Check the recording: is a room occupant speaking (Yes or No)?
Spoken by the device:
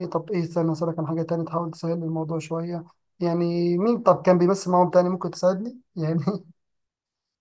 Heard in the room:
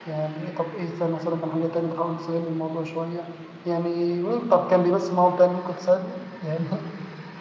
No